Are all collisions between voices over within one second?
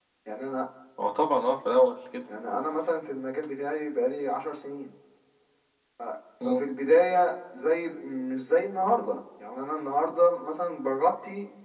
Yes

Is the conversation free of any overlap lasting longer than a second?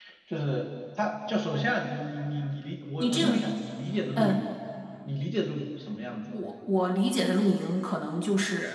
Yes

